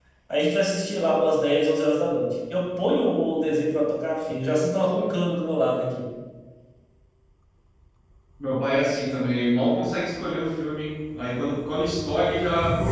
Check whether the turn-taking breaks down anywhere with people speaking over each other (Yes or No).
No